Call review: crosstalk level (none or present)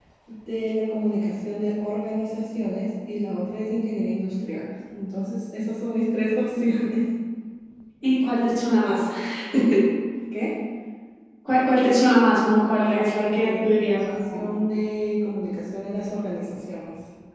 present